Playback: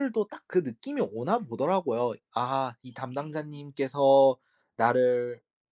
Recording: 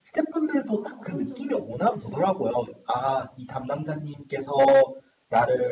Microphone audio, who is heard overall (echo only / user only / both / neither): both